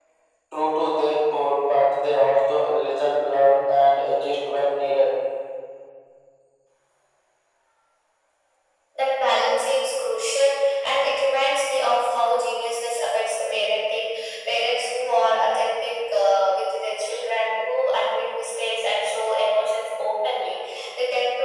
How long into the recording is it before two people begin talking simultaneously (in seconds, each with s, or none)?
none